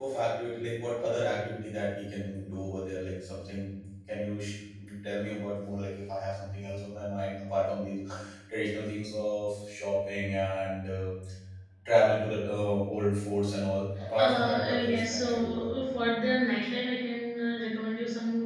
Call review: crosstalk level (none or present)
present